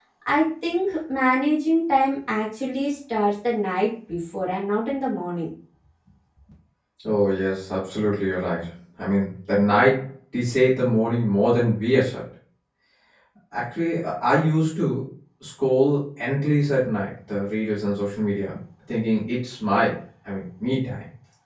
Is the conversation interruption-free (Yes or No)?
Yes